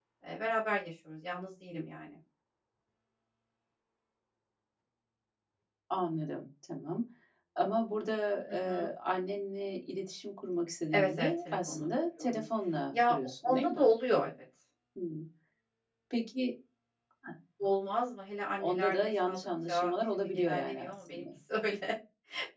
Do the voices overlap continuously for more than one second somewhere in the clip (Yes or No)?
Yes